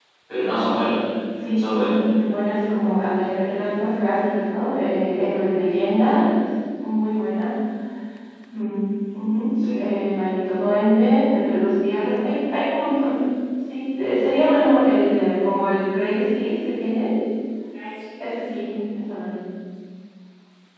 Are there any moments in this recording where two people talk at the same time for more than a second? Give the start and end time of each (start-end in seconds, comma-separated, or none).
none